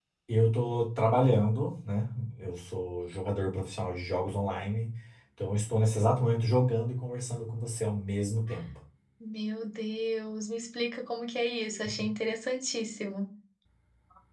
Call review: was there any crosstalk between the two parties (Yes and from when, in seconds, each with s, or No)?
No